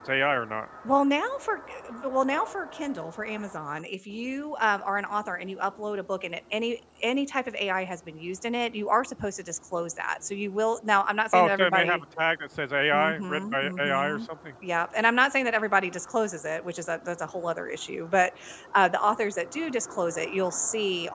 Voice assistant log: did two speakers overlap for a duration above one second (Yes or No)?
Yes